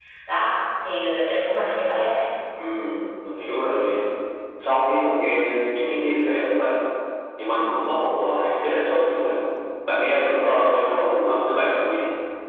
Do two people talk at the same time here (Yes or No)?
No